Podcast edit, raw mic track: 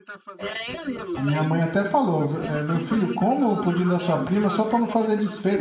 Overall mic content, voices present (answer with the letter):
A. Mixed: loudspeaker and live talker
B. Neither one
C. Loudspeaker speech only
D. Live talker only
A